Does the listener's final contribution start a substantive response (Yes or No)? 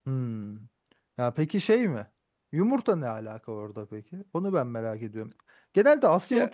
No